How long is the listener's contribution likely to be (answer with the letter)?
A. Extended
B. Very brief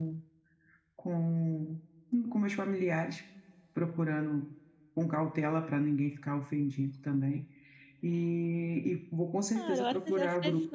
A